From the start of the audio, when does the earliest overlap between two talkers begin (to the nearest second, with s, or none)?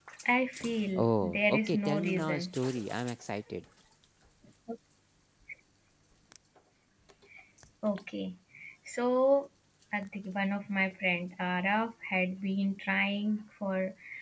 1 s